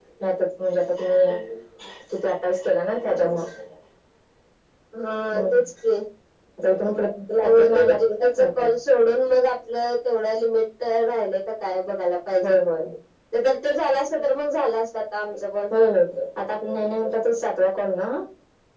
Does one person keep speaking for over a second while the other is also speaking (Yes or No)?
Yes